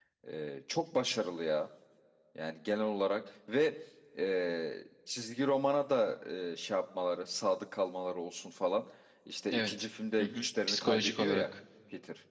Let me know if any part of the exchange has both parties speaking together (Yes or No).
Yes